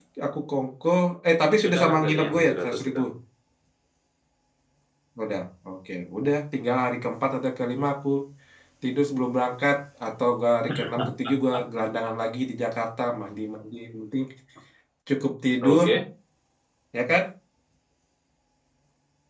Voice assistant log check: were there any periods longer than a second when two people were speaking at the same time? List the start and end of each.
1.6-3.0

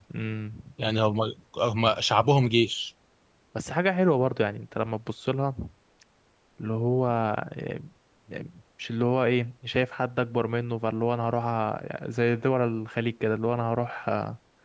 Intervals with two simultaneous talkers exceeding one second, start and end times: none

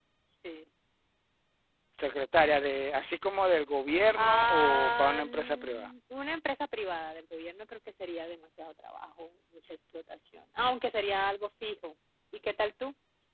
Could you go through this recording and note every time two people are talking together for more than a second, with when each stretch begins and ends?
4.2-5.9

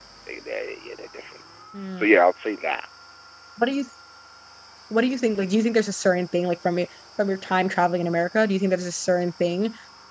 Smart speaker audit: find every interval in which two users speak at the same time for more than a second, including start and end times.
none

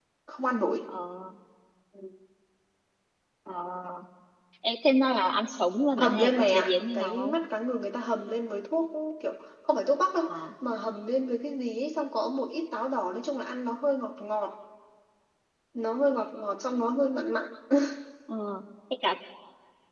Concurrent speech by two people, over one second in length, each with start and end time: 5.9-7.3

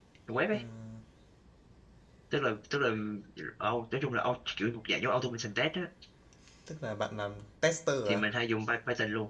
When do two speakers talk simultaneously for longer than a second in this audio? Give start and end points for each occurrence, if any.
none

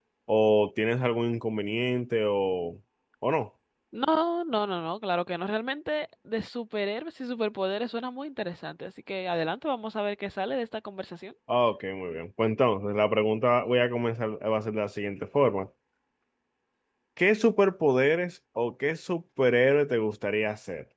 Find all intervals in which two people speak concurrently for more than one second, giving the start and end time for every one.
none

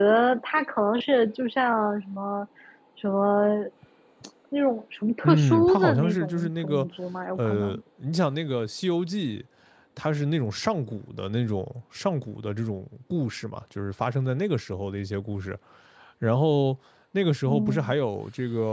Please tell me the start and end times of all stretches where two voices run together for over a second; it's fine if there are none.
5.2-6.9

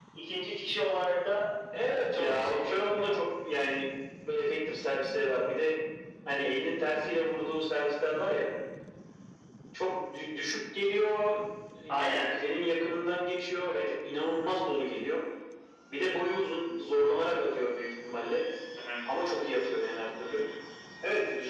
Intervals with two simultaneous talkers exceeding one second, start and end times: 1.9-3.2

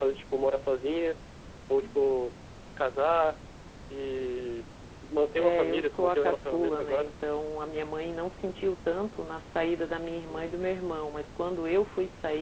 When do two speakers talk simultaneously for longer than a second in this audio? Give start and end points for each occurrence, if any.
5.4-7.1

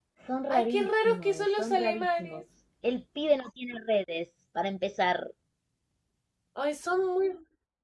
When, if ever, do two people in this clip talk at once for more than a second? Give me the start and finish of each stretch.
0.5-2.4

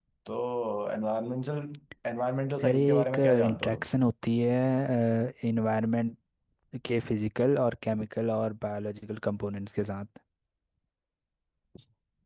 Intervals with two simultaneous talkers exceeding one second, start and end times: 2.6-3.9

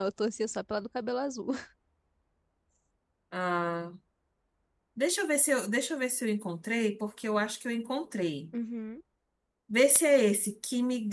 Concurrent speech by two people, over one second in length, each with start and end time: none

